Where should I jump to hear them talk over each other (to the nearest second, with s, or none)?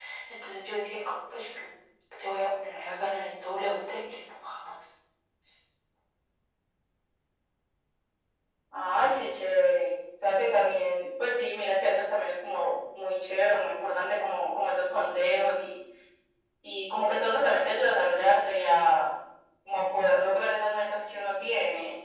none